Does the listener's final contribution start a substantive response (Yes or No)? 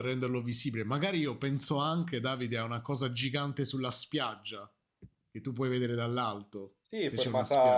Yes